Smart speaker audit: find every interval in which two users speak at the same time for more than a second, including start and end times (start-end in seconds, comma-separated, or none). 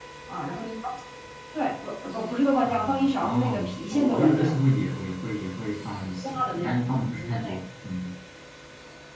2.6-4.5